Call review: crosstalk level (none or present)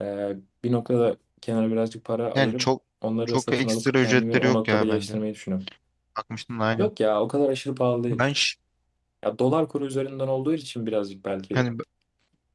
present